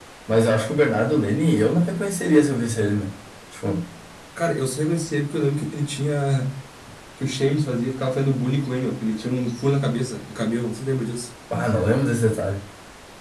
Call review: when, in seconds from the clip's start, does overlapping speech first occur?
none

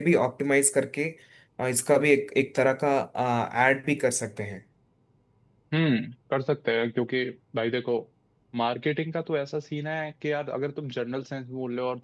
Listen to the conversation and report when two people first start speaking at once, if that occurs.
none

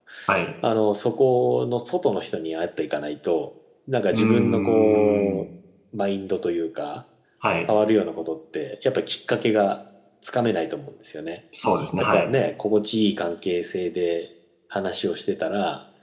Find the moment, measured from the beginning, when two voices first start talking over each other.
4.1 s

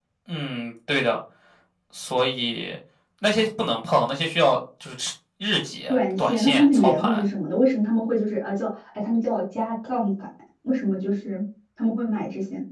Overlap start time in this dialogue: 5.9 s

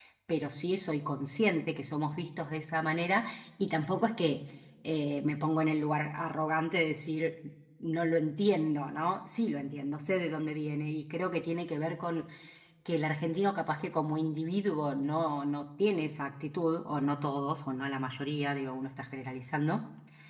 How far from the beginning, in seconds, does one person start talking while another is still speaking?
none

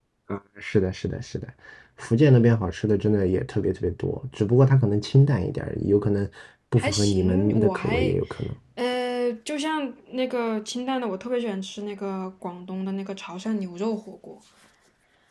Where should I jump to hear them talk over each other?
6.8 s

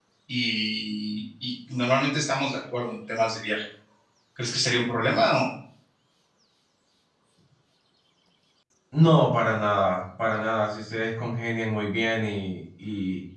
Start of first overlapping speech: none

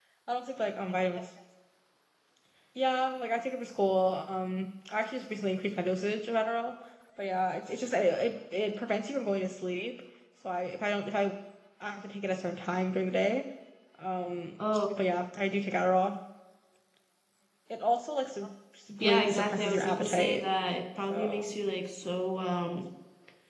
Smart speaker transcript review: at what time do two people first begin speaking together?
19.0 s

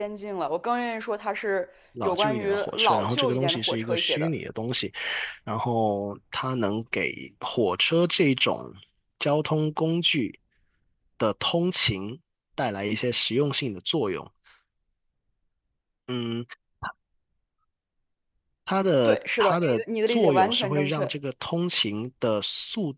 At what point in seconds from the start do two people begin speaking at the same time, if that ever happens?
2.0 s

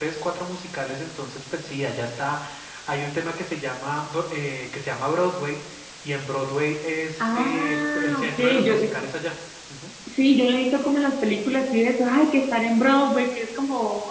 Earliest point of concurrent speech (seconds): 7.2 s

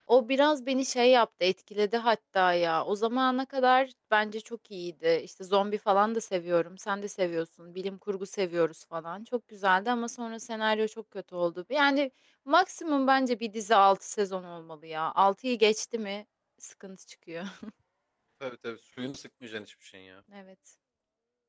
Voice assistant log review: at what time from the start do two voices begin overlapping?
none

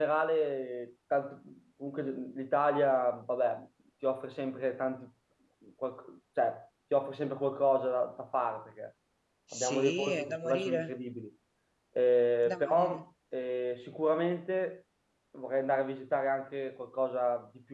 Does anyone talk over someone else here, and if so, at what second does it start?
9.5 s

